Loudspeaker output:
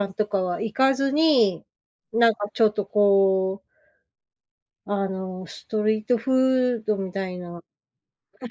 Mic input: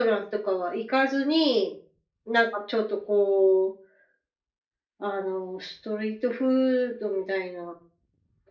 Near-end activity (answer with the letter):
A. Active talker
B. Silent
B